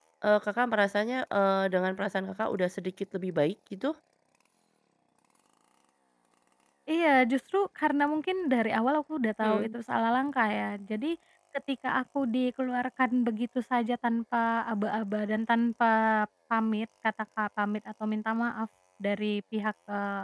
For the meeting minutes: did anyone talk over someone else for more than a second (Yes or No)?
No